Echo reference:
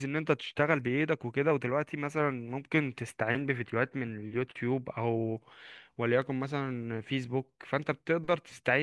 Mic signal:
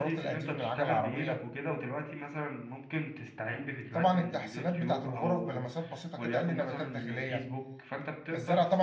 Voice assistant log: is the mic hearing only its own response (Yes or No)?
No